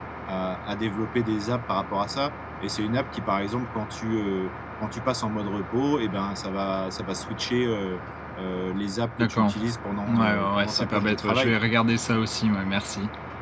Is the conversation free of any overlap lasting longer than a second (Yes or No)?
No